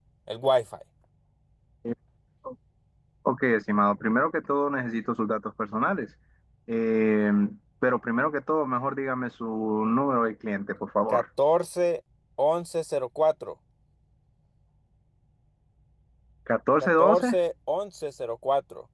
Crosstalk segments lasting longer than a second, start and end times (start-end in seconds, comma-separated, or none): none